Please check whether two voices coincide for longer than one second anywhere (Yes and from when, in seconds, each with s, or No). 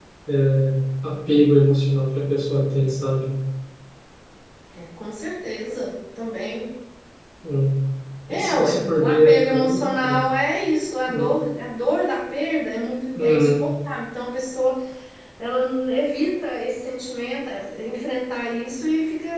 Yes, from 8.3 s